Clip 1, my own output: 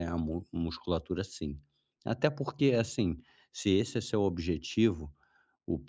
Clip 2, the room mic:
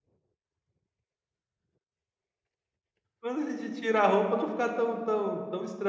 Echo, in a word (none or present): none